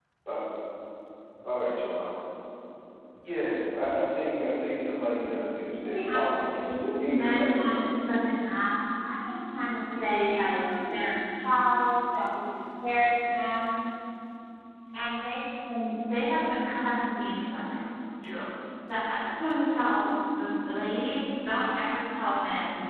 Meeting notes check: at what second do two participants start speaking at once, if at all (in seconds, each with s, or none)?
5.8 s